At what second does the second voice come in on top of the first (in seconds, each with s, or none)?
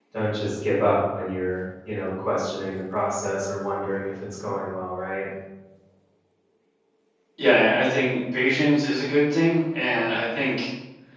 none